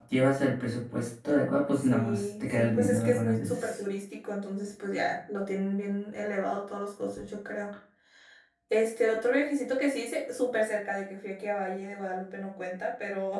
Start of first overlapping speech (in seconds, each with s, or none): 1.7 s